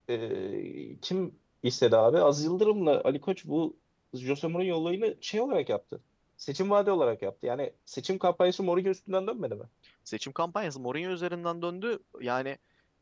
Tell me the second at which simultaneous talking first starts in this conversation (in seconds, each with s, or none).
none